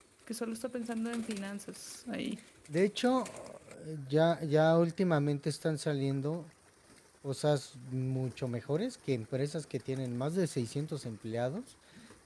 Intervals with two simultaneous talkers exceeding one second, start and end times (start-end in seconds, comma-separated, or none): none